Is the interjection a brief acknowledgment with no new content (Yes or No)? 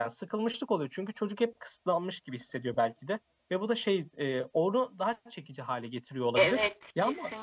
No